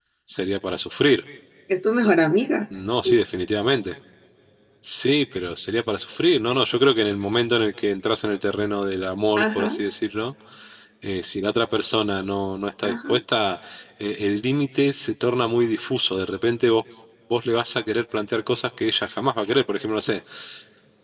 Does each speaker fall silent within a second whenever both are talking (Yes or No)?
Yes